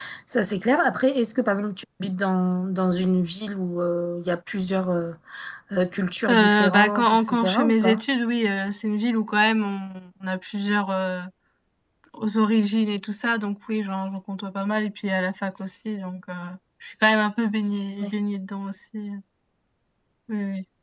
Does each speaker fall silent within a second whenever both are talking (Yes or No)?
No